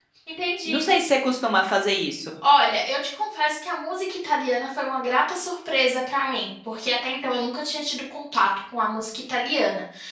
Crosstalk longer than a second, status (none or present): none